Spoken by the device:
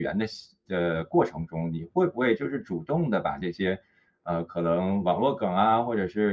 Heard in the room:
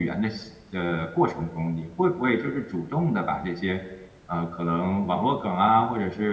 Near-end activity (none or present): none